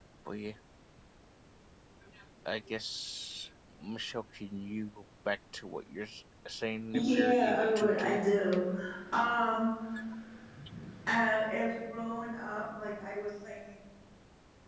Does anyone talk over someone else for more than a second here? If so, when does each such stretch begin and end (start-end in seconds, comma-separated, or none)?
6.9-8.2